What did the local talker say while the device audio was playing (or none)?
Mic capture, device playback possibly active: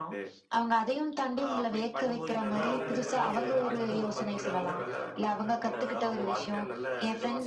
இதனால என்ன எதிர்காலத்துல வந்து வரும்போதும் பார்த்தீங்கன்னா, அவங்க தனக்கு பக்கத்துல இருக்கிறவங்கள பார்த்து ஒப்பிட மாட்டாங்க.